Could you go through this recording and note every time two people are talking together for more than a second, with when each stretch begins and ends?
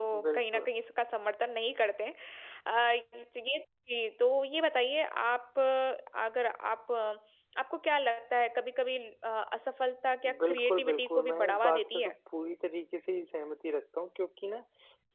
10.5-12.1

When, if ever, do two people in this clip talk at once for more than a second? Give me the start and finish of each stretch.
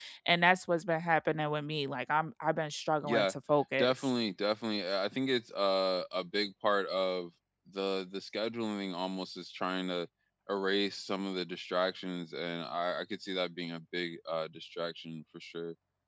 none

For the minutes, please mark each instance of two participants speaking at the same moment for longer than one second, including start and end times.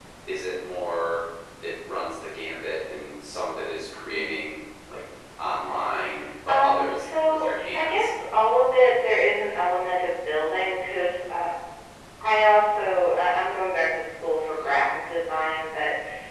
6.5-8.1

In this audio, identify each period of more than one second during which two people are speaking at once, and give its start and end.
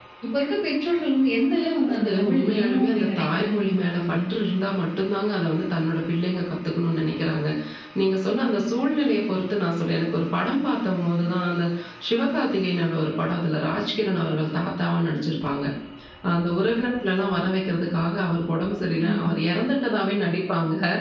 1.8-4.2

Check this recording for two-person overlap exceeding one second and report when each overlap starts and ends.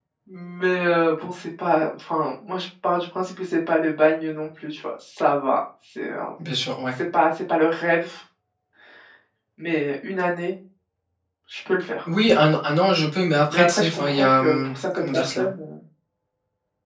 13.5-15.5

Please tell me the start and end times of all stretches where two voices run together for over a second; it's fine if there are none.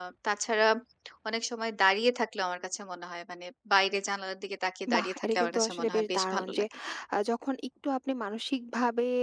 4.9-6.6

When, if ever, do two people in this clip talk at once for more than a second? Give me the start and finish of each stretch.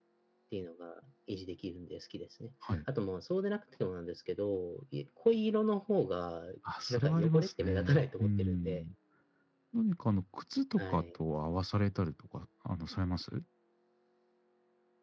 6.9-8.8

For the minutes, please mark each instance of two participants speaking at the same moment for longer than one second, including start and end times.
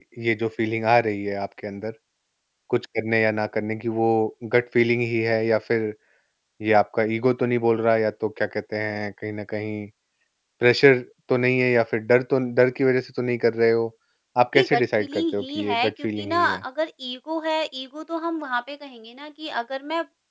14.5-16.6

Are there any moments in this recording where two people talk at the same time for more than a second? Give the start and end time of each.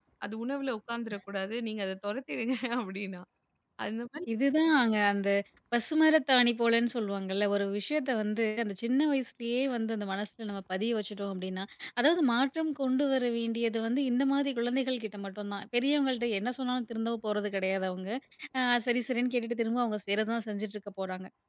none

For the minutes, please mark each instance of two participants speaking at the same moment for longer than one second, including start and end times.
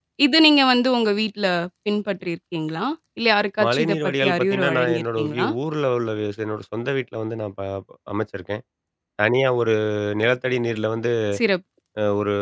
3.6-5.5

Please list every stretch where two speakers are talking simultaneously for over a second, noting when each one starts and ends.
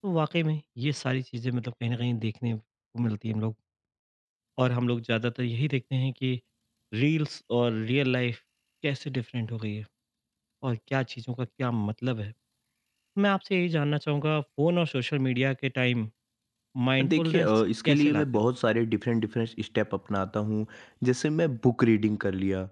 17.0-18.4

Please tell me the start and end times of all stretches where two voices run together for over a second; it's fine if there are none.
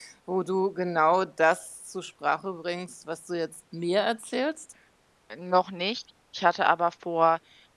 none

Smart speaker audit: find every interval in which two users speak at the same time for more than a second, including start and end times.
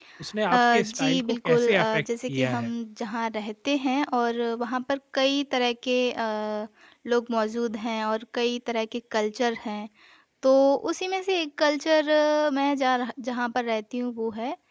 0.5-2.7

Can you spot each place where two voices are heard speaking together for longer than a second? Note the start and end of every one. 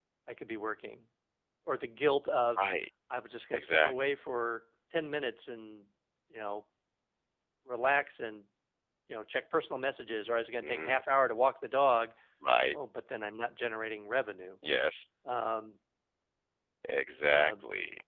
none

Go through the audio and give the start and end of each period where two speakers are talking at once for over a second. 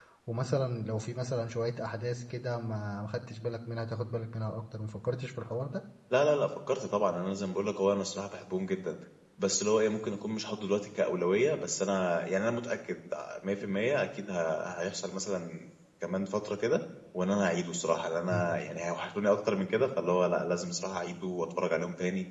none

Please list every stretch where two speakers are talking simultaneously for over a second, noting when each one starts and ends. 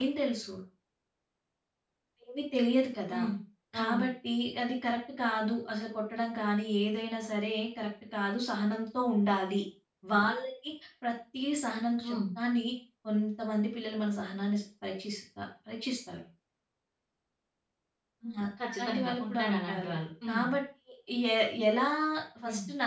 18.7-19.9

